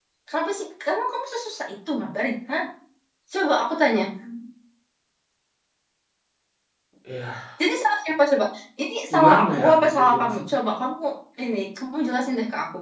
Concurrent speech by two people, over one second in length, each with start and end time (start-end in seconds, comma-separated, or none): 9.1-10.4